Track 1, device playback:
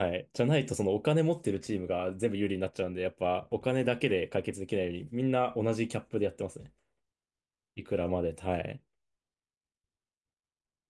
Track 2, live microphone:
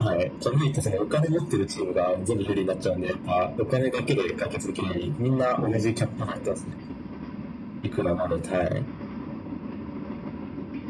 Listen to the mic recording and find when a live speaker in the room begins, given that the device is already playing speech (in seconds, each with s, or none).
5.6 s